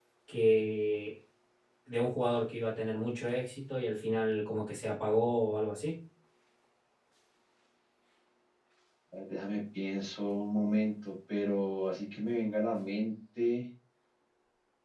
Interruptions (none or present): none